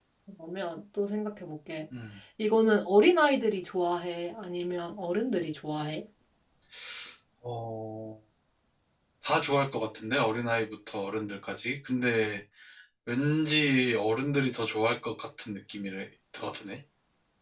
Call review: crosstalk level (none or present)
none